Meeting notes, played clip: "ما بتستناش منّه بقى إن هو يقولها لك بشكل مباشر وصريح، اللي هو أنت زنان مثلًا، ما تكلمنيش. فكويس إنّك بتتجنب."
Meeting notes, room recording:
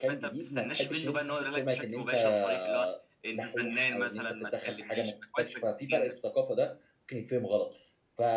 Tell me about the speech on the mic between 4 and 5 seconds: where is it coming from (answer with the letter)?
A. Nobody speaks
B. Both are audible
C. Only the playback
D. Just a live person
B